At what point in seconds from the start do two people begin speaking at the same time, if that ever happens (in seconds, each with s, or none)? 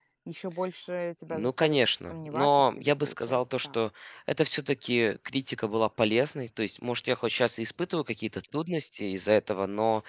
1.3 s